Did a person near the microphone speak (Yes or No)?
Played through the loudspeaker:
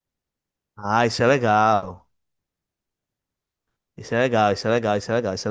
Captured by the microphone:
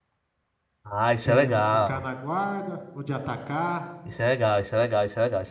Yes